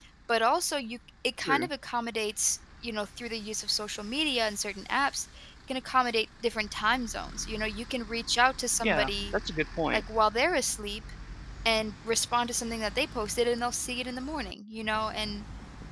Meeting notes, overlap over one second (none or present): none